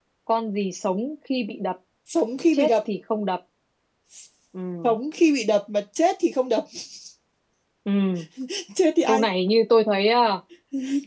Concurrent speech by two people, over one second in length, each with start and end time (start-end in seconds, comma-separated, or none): none